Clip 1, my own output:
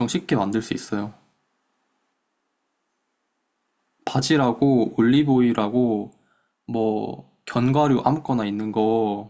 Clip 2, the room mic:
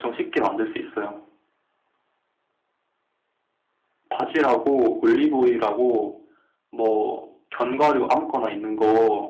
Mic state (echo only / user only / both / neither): echo only